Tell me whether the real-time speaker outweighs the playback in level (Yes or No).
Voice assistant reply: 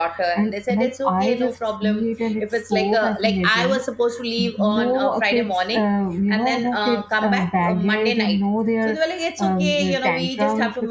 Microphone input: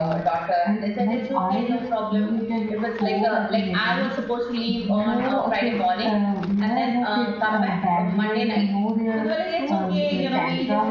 No